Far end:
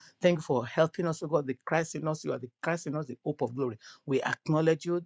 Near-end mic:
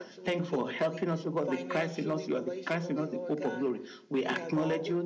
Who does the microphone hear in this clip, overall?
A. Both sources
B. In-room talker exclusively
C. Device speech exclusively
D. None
A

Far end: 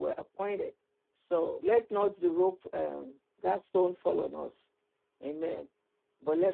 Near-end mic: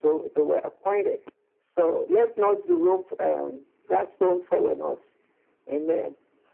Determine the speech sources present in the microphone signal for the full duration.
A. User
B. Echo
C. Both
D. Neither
B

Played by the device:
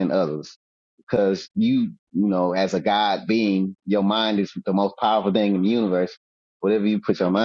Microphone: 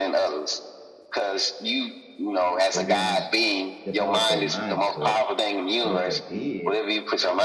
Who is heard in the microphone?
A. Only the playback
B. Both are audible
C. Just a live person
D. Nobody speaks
B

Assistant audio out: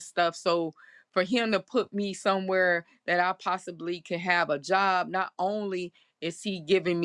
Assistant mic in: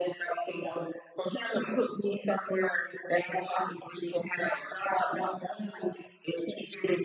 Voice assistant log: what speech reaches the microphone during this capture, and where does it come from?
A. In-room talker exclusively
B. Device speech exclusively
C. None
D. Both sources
B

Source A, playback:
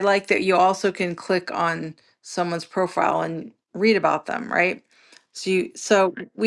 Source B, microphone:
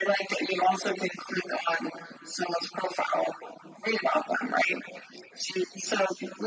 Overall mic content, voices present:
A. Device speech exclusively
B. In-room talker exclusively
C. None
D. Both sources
A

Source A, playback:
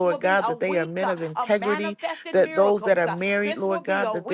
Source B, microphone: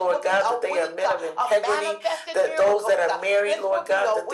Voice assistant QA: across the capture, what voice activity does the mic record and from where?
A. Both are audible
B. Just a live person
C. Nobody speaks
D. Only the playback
D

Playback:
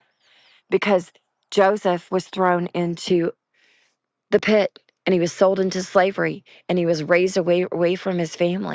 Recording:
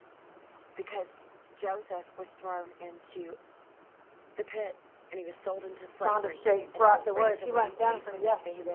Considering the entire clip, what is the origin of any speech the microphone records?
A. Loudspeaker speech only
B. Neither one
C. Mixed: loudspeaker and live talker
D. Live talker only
C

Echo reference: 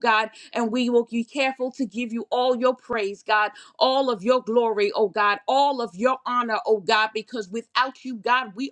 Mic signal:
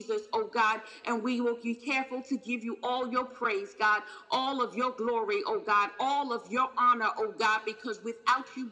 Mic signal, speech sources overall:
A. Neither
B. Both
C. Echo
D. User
C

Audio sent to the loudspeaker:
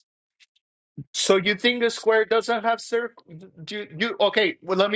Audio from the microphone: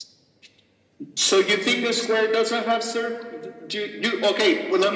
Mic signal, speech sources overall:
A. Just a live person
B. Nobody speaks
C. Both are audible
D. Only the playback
D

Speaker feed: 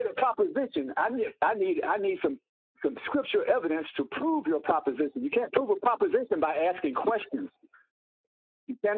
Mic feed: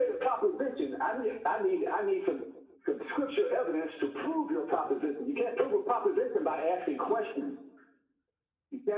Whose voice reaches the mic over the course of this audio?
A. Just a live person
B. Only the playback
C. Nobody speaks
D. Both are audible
B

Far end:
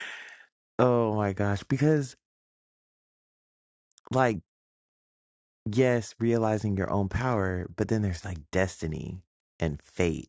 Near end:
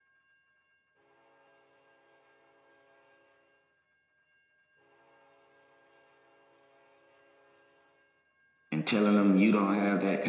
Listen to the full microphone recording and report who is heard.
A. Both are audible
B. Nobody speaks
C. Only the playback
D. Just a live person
D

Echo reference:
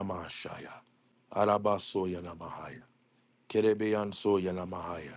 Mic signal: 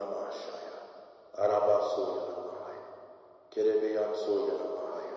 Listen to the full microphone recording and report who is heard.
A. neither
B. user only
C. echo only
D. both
C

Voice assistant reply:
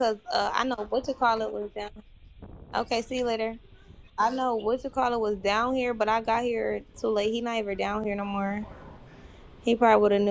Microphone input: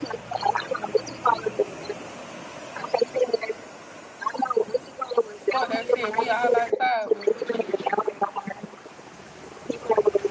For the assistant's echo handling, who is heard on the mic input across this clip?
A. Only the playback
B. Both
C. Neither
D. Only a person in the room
B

